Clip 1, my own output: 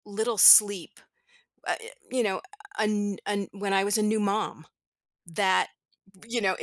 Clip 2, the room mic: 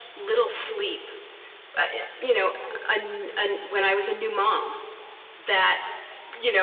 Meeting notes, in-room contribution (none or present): none